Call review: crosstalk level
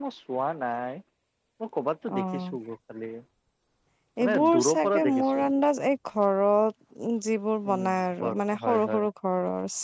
present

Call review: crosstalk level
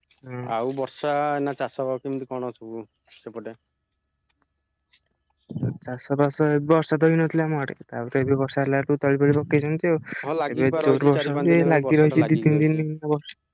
present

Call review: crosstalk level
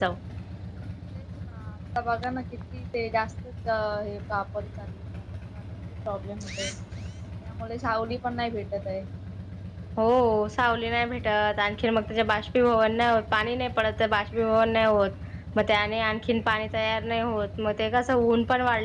none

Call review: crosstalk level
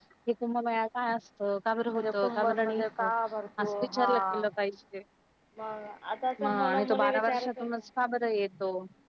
present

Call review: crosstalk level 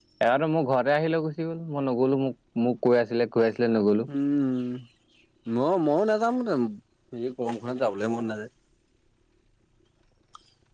none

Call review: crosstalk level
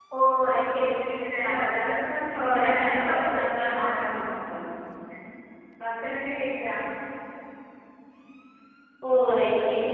present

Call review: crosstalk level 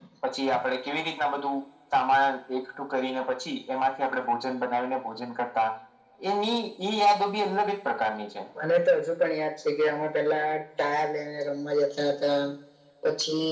none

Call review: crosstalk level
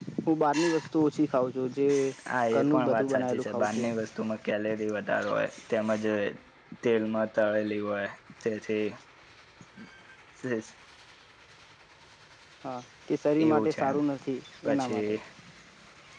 present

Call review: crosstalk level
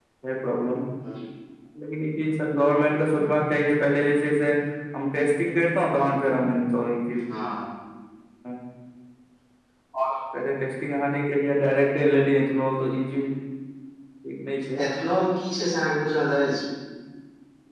none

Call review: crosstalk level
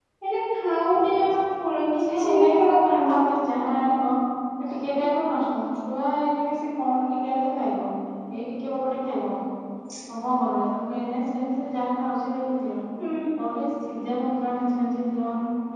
present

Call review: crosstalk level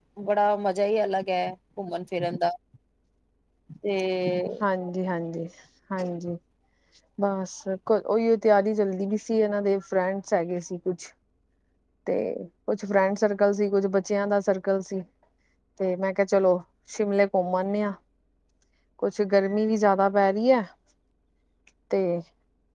none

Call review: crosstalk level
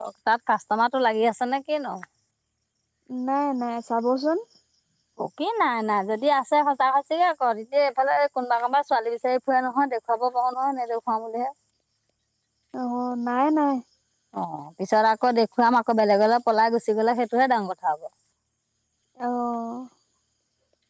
none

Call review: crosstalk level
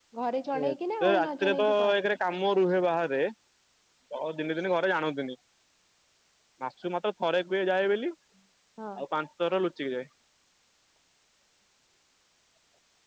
present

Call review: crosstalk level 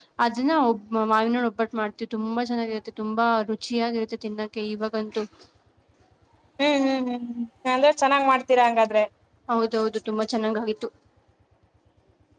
none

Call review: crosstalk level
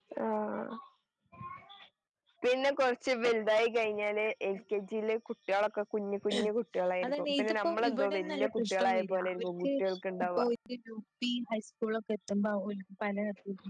present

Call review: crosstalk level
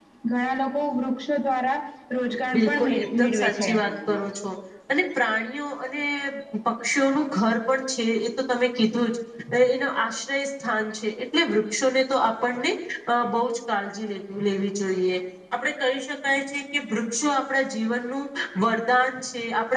present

